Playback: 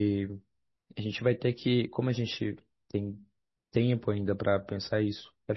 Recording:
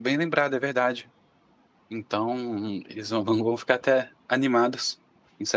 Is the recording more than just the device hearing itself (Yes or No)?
Yes